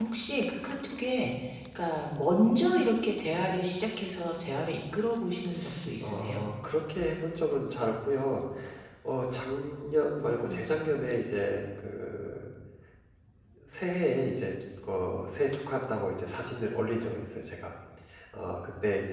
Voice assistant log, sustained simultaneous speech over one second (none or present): none